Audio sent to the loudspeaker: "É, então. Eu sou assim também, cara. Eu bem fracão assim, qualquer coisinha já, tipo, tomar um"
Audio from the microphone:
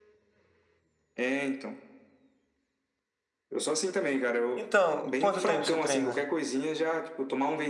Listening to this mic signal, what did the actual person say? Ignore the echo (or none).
Então, quanto tempo você treina?